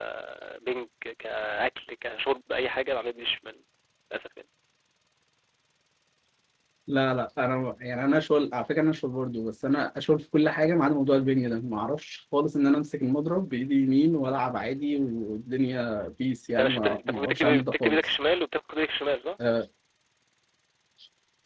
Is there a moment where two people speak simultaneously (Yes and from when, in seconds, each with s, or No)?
Yes, from 16.5 s